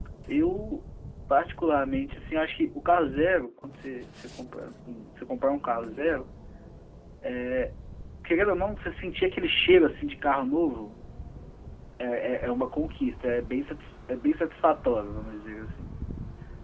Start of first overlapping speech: none

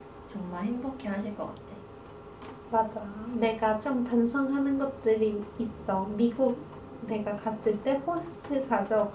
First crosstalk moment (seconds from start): none

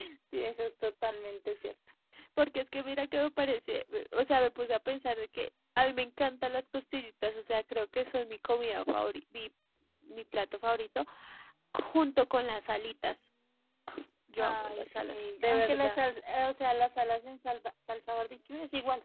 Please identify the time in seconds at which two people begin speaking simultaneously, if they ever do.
14.4 s

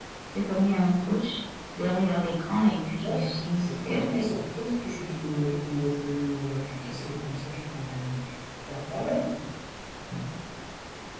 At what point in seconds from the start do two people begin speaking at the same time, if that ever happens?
3.0 s

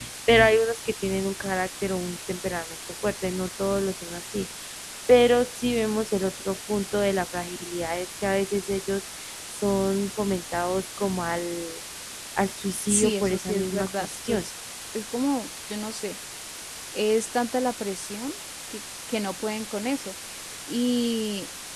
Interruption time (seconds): 12.8 s

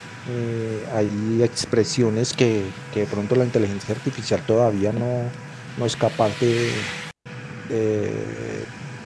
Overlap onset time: none

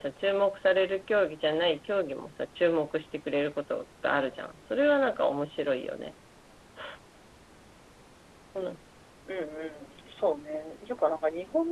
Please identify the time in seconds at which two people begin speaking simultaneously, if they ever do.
none

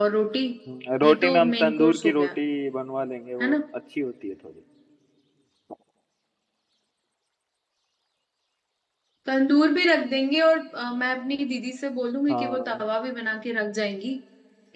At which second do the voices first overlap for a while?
1.0 s

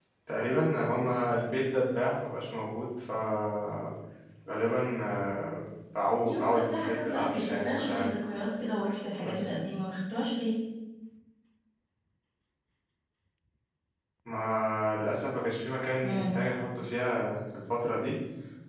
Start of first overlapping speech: 6.2 s

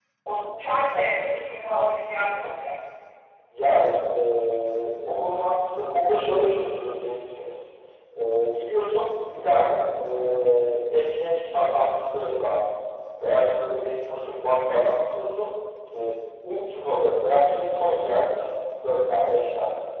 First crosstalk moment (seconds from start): none

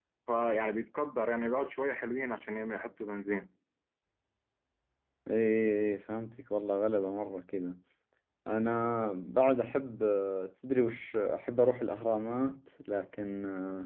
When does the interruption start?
none

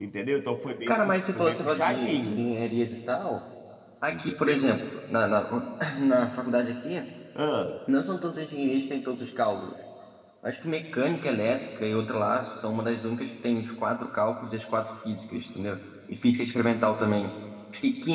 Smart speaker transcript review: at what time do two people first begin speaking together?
0.9 s

